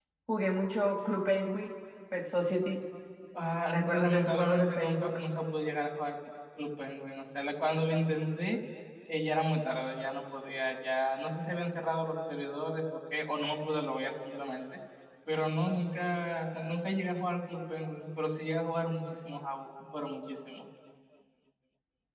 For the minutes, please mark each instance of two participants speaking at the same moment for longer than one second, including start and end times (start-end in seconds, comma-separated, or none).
3.7-5.2